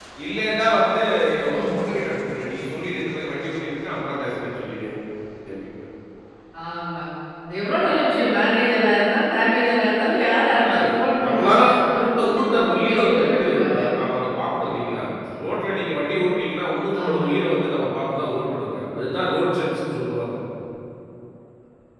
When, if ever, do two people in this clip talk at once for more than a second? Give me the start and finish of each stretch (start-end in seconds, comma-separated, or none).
12.4-13.8